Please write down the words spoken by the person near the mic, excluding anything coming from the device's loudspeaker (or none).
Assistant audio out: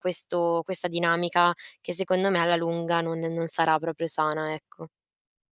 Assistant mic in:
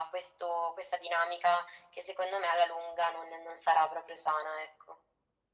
none